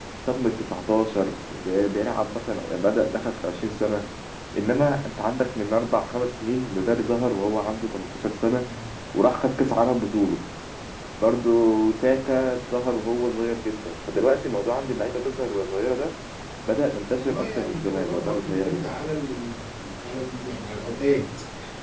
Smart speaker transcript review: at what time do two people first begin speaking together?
17 s

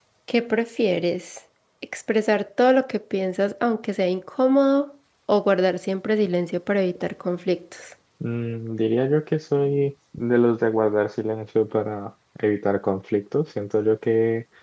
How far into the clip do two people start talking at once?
none

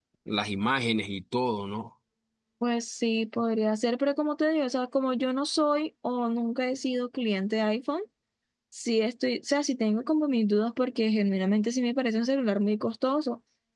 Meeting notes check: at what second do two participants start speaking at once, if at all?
none

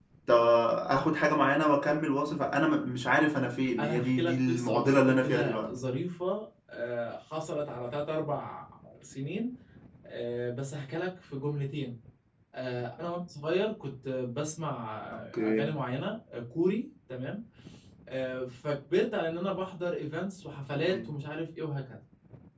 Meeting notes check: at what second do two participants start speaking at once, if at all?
4 s

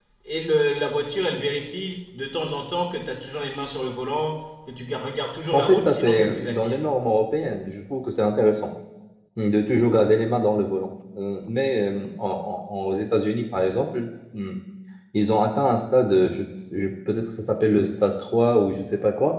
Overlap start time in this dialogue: 6 s

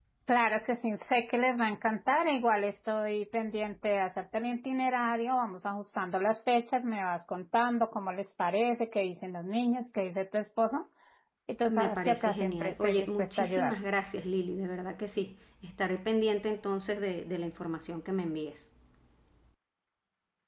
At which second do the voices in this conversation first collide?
12 s

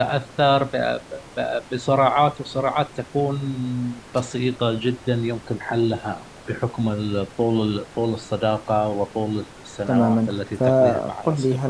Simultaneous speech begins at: 10 s

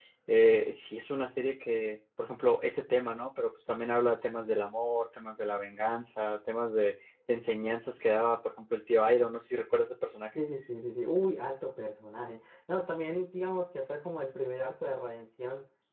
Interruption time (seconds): none

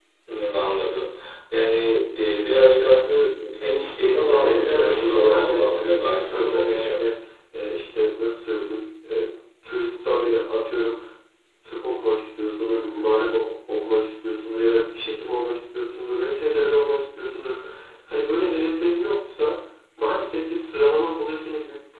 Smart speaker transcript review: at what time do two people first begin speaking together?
4 s

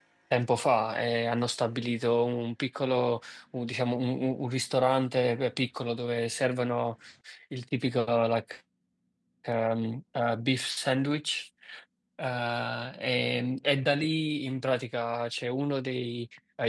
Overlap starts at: none

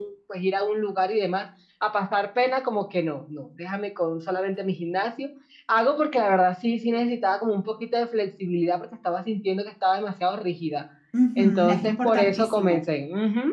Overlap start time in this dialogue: 11 s

